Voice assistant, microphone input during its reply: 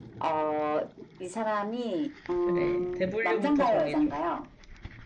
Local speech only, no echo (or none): 그래. 대분류부터 정해줘.